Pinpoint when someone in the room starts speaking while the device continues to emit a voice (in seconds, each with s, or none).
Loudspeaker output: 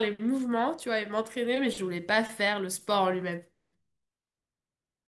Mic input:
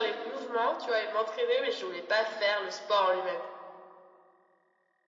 none